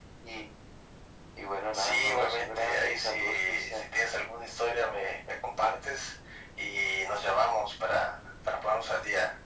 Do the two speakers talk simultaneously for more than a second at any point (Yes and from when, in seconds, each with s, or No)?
Yes, from 1.7 s